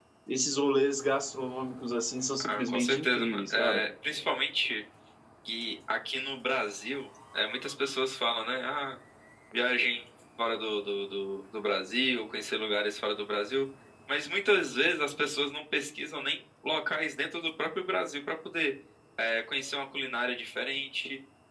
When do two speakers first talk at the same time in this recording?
2 s

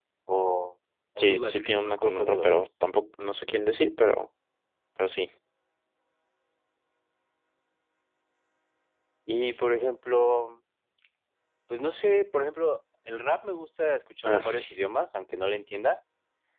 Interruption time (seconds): 1 s

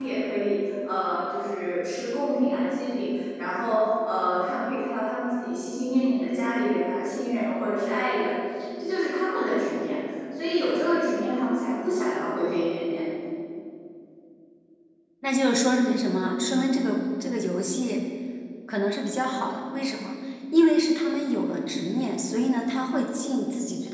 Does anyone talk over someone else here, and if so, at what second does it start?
none

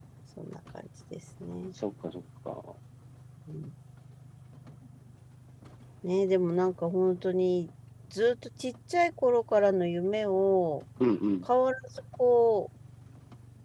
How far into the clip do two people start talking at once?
none

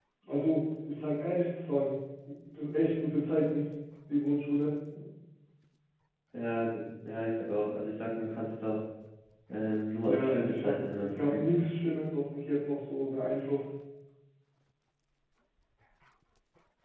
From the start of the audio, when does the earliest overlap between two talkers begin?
10 s

